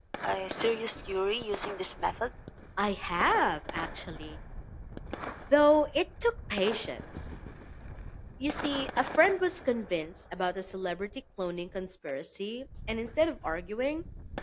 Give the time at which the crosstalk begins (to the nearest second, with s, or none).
none